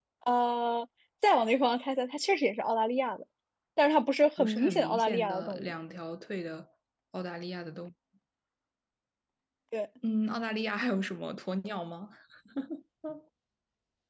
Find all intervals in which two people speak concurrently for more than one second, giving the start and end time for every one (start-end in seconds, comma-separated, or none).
4.4-5.7